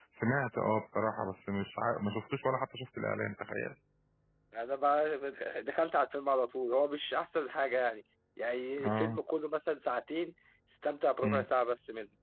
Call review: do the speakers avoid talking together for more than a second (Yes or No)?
Yes